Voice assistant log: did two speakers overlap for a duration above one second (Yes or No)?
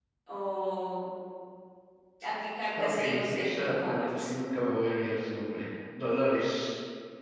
Yes